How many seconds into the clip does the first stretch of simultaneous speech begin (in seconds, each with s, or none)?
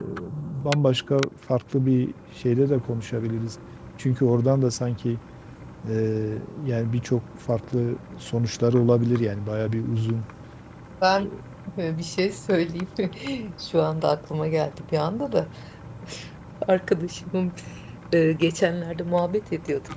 none